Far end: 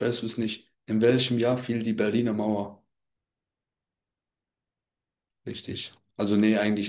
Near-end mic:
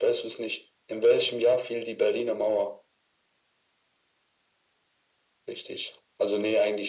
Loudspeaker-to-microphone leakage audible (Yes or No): Yes